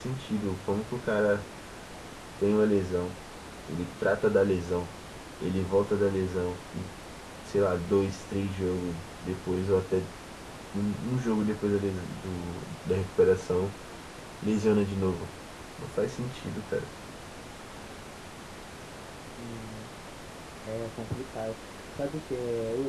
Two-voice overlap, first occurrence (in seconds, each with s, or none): none